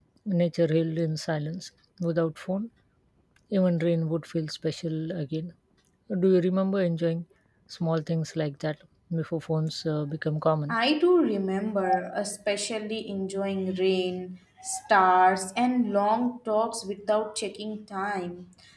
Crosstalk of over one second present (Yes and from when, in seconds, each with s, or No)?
No